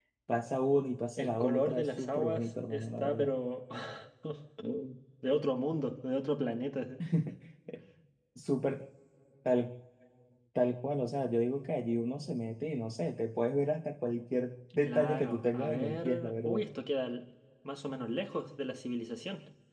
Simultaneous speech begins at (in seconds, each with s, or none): 1.2 s